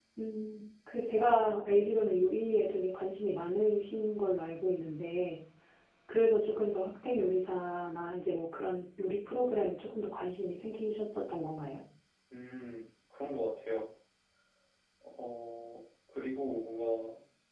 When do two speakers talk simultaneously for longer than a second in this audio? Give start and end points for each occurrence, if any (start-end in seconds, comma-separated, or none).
none